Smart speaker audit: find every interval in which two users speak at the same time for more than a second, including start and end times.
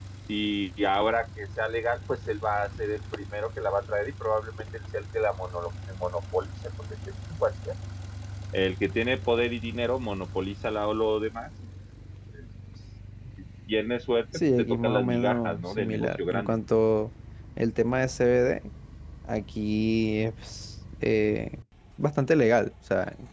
14.6-16.6

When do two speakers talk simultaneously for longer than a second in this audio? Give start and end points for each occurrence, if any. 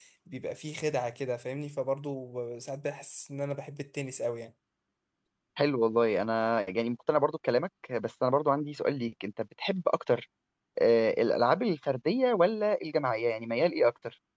none

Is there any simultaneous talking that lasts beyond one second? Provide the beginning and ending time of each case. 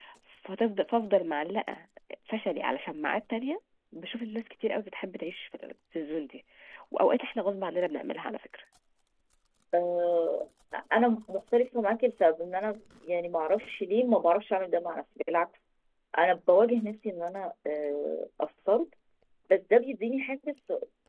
none

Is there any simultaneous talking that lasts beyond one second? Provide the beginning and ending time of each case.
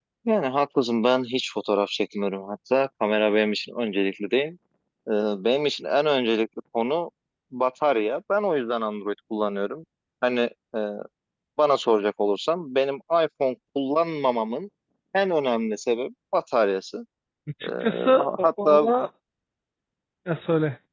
17.6-18.9

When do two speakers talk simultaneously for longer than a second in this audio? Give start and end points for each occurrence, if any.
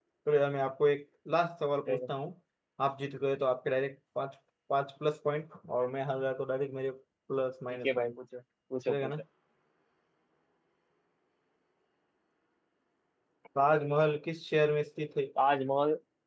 none

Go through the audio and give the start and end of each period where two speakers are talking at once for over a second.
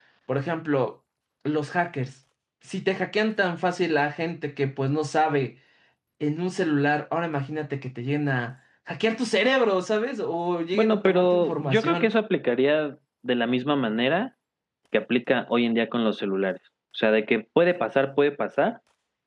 10.7-12.1

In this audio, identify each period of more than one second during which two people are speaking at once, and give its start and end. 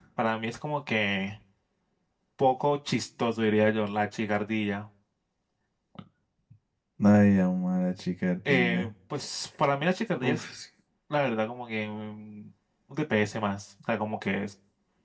none

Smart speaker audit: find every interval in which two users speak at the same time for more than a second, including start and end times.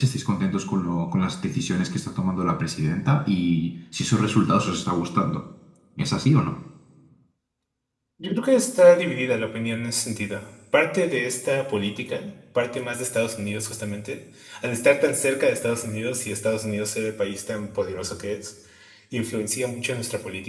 none

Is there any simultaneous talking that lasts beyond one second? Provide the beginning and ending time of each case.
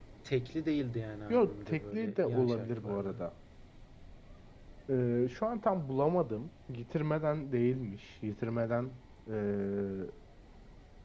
1.3-3.2

